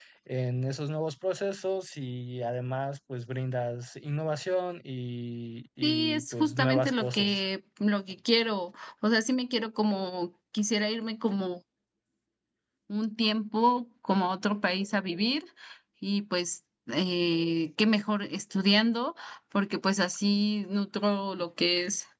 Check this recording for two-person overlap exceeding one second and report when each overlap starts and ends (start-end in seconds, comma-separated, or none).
5.8-7.4